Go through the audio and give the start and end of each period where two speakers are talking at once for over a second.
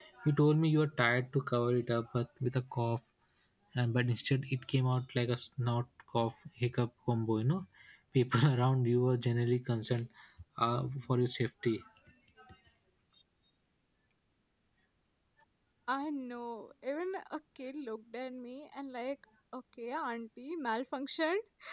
none

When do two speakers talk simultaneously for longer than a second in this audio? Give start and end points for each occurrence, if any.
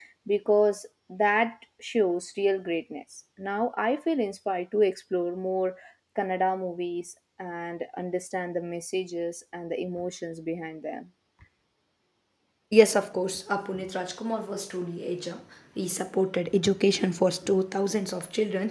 none

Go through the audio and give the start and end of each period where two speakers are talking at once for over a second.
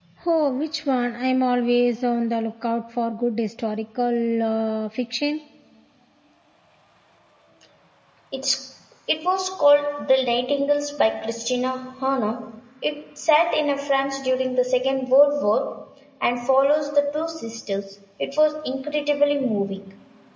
none

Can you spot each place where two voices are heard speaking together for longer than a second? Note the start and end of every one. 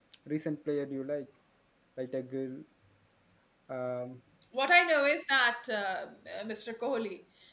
none

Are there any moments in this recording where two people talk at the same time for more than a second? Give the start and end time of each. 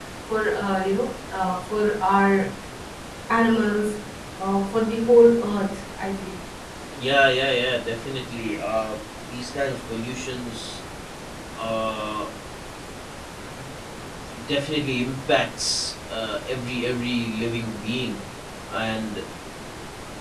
none

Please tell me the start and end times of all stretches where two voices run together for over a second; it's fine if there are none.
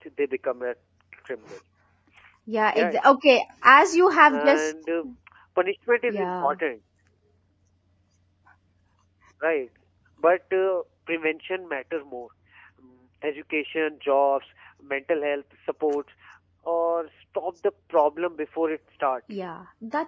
none

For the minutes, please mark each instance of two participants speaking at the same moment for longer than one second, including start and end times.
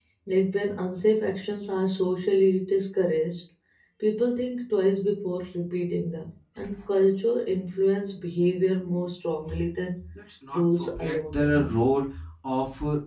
10.5-11.8

